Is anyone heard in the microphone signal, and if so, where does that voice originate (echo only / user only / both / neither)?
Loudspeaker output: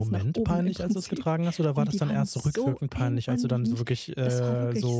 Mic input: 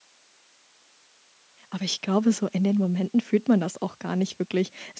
user only